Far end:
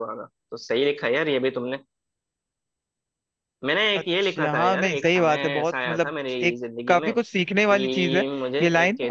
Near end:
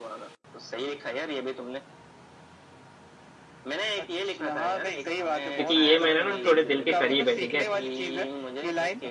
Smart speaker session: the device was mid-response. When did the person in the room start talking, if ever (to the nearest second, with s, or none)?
5 s